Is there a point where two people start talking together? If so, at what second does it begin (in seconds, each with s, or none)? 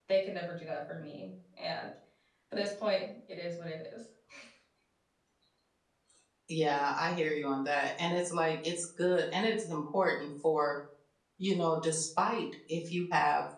none